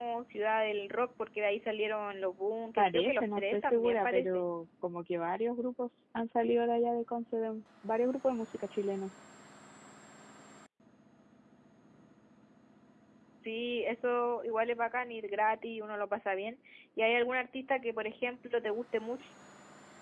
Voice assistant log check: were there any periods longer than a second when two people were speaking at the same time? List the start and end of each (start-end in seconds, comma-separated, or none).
2.8-4.4